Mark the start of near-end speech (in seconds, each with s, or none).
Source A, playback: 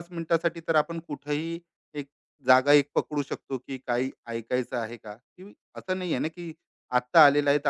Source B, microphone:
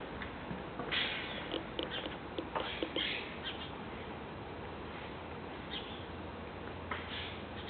none